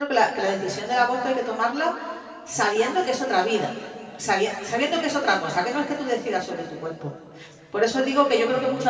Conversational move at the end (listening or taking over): listening